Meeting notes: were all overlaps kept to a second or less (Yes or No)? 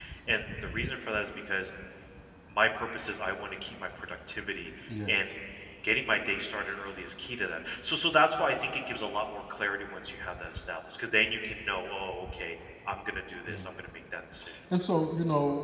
Yes